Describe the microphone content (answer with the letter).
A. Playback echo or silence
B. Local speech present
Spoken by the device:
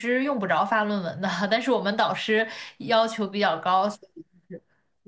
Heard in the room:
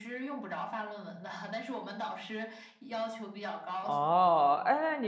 B